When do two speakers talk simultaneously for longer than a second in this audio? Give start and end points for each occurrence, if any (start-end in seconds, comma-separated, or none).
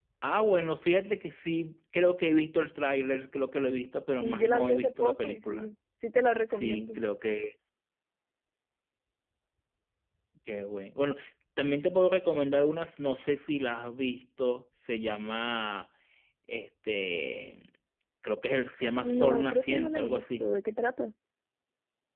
4.2-5.7, 19.0-20.5